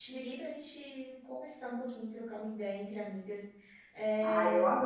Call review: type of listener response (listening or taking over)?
taking over